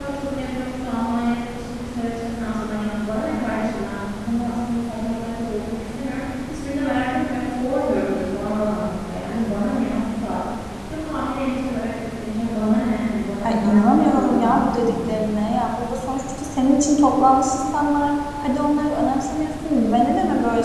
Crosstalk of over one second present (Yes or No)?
Yes